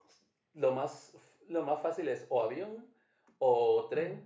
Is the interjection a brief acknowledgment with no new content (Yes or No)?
Yes